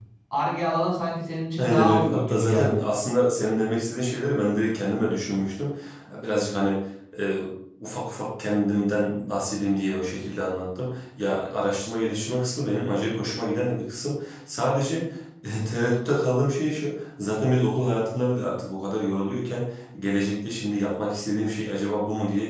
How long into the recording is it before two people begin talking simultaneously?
1.6 s

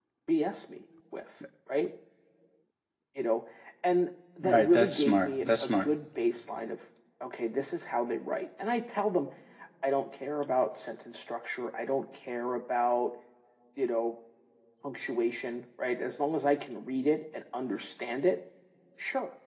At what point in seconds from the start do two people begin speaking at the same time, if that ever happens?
4.4 s

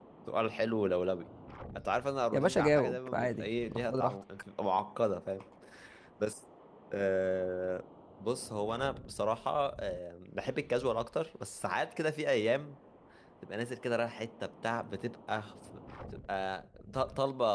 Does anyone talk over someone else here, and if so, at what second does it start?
2.3 s

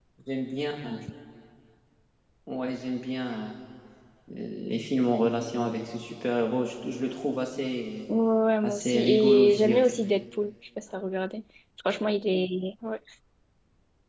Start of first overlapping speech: 8.6 s

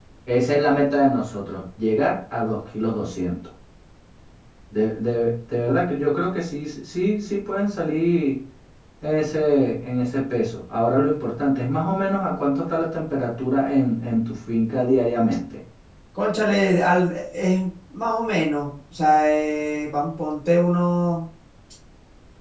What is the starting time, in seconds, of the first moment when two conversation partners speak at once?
none

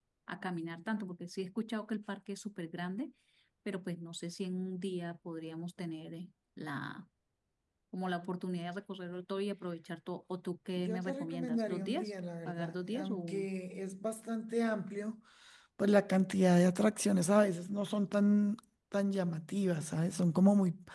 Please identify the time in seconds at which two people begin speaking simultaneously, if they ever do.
10.8 s

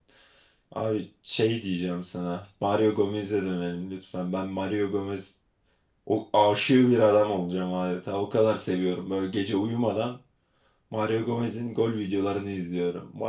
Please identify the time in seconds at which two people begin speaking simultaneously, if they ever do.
none

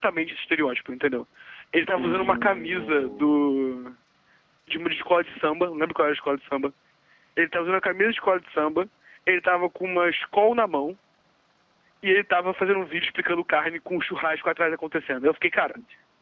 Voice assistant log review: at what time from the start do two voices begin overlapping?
1.9 s

